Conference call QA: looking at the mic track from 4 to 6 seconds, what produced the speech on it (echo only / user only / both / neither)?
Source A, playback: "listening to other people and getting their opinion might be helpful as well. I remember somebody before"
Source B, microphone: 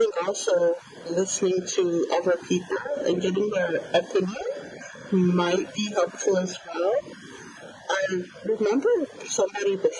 echo only